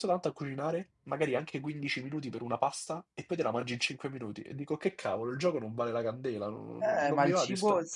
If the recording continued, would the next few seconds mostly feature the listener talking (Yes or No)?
Yes